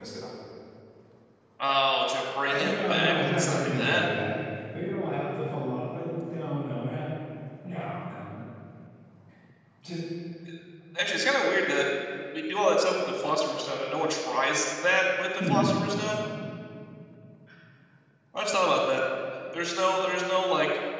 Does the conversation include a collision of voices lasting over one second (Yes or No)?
Yes